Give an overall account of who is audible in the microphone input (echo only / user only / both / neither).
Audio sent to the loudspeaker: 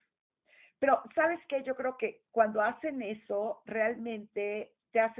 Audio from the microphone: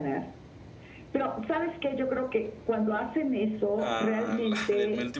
both